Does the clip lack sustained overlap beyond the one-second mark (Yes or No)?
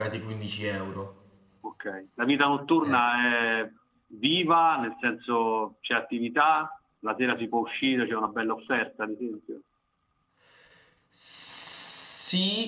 Yes